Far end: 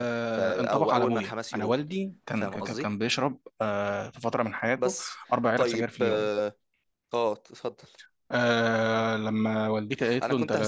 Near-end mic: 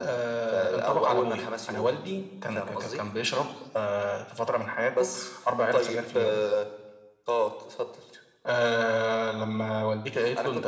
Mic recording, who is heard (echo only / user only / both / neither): echo only